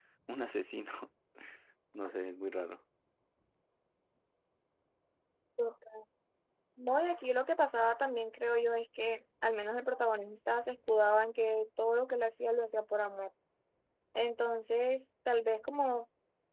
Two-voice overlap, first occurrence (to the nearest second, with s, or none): none